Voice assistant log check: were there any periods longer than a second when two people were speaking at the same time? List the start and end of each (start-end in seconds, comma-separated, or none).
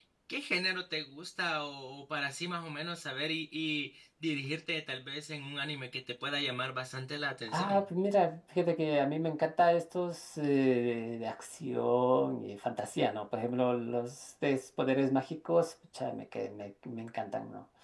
none